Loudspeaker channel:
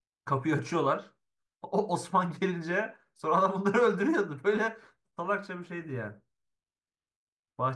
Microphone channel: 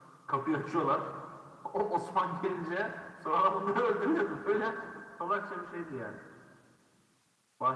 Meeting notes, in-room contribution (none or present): none